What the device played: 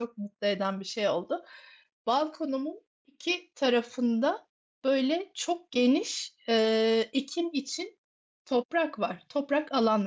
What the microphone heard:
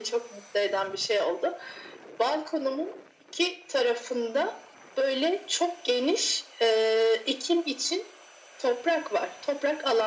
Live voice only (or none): none